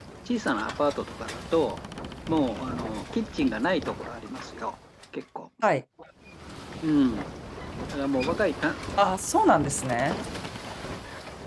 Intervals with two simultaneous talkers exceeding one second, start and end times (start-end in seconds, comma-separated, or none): none